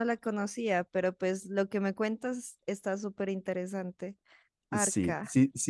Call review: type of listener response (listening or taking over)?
taking over